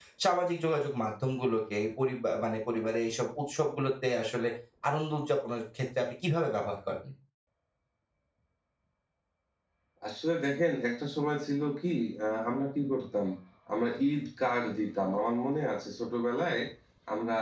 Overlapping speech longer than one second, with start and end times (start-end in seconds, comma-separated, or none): none